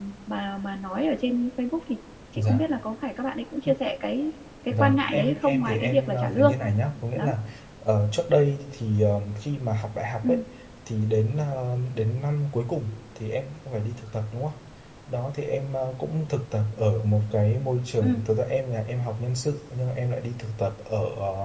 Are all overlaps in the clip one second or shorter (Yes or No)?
No